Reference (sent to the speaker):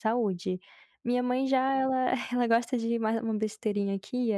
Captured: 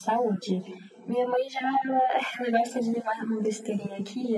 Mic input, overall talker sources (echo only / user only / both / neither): echo only